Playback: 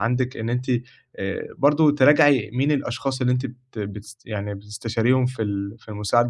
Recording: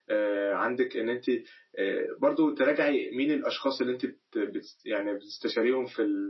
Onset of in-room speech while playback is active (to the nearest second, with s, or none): none